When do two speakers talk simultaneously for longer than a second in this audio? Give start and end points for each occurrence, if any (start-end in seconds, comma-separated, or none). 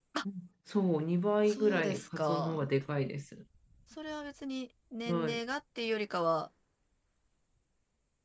1.5-2.7